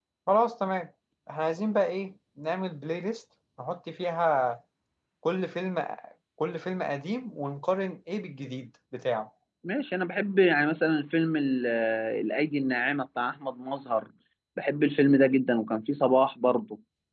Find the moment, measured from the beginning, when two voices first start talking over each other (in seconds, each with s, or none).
none